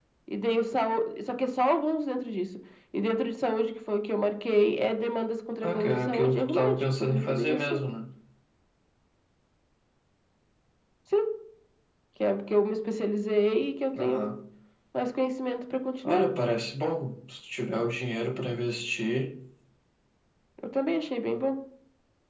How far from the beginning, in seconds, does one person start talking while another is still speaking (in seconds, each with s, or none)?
5.6 s